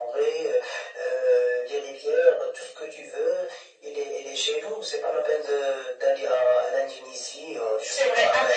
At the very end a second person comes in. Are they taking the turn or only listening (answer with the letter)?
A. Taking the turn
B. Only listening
A